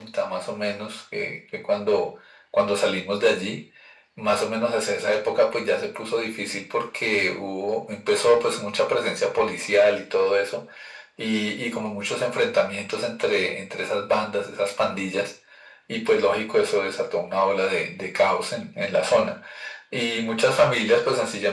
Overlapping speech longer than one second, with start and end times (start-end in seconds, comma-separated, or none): none